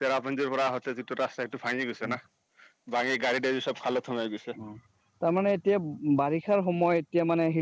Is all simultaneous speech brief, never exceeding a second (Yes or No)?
Yes